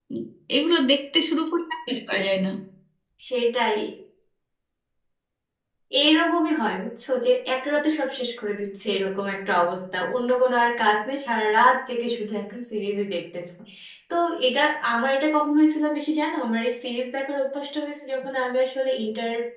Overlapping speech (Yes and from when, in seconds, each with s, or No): No